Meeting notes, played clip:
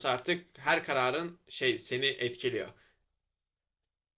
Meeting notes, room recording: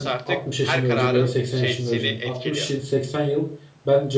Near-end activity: present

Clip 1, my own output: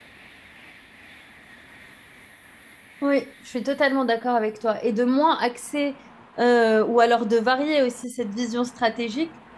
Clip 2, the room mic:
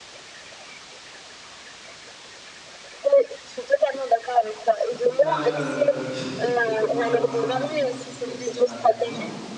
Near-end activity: present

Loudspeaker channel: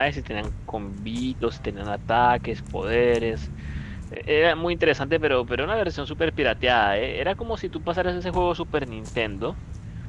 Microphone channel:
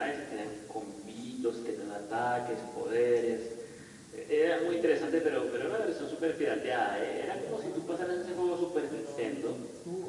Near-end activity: present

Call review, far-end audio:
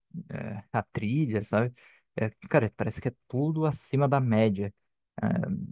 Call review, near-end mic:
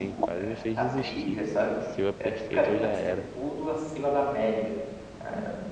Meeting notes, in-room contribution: present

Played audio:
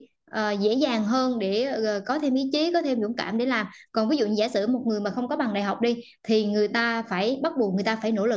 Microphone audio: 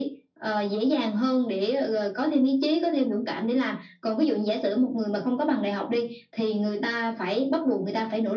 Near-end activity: none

